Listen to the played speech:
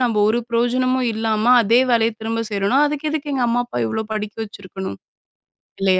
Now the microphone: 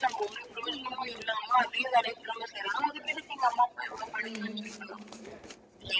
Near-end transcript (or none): ம்.